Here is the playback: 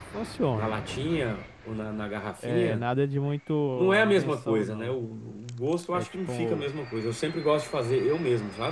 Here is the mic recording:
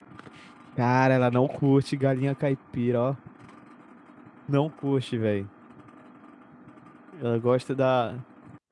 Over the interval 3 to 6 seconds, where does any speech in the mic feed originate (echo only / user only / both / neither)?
user only